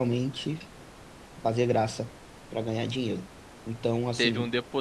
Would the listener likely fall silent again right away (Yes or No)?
No